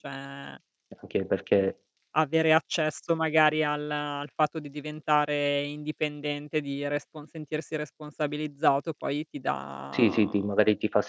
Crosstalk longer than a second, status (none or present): none